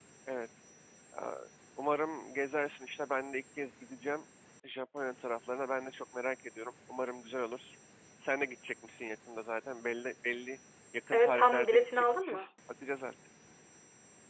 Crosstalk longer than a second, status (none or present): present